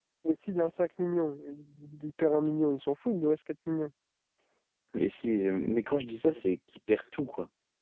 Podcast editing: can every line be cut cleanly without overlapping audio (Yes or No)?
Yes